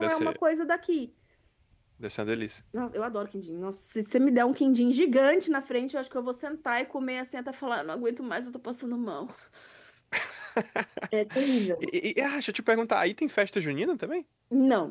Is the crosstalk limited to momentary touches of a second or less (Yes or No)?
Yes